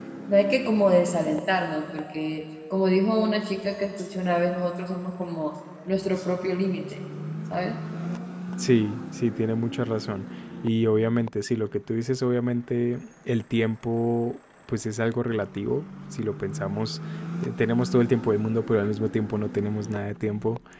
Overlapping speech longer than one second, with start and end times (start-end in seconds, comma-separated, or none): none